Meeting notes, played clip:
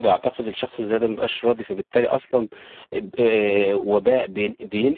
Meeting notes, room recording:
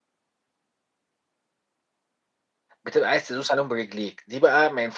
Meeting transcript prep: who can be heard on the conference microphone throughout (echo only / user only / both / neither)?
user only